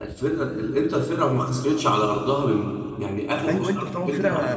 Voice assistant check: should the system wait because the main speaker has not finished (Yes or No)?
No